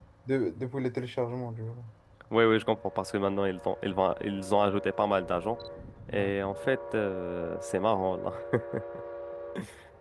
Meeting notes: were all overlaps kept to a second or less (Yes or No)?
Yes